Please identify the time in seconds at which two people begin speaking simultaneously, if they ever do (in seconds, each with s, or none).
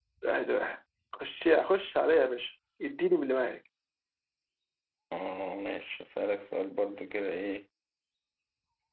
none